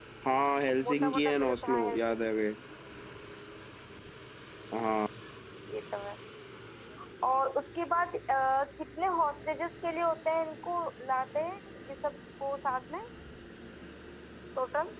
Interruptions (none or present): present